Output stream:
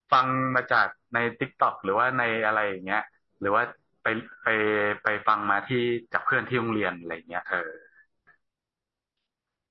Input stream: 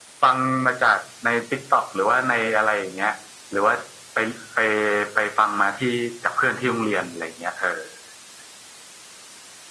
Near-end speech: none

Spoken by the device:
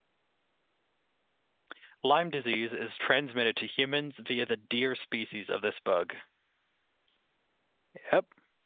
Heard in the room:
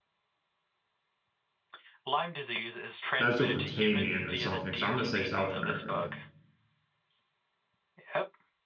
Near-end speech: present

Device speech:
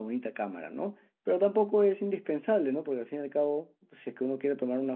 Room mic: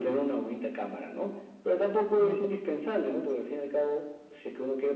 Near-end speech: present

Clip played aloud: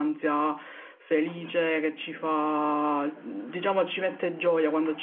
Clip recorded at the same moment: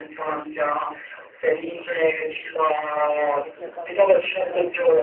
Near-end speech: present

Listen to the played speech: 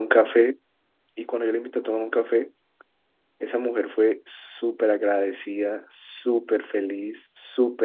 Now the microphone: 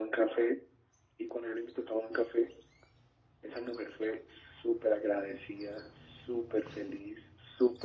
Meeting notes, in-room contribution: none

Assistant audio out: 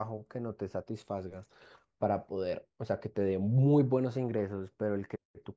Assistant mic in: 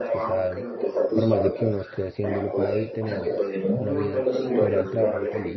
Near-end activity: present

